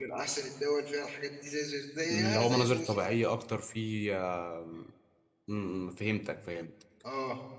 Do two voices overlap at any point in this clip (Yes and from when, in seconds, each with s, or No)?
Yes, from 2.0 s